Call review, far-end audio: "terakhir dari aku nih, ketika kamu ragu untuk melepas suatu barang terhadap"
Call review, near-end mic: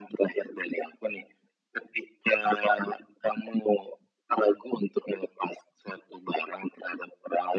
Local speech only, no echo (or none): none